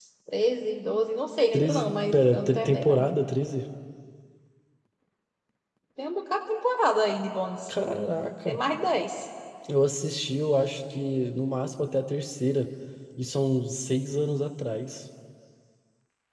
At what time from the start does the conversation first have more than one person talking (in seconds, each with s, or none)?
1.5 s